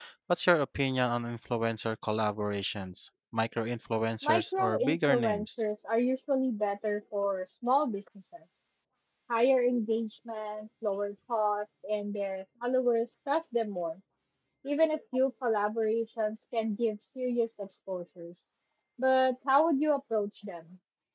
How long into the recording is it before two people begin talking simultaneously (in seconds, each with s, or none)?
4.2 s